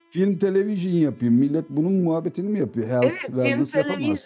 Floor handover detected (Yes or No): Yes